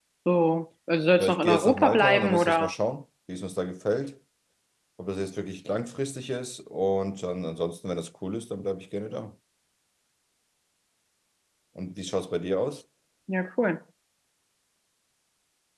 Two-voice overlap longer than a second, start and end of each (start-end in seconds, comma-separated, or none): 1.2-2.7